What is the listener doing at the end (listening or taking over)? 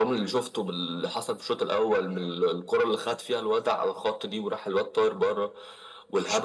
listening